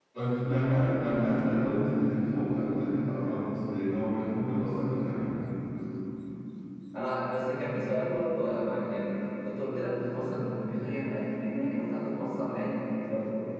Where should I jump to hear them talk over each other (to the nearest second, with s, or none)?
none